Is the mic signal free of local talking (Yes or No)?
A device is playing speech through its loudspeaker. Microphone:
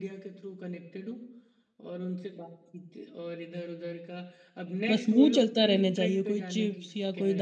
No